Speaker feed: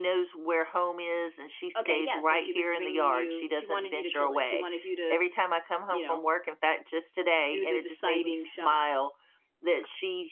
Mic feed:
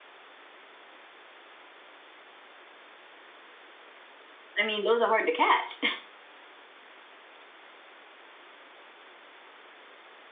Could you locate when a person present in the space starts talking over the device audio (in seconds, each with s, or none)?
4.6 s